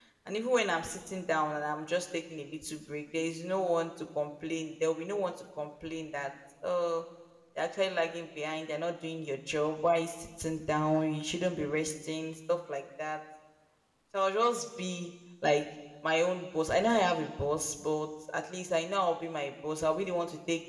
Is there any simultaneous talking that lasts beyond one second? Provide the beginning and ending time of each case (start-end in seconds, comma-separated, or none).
none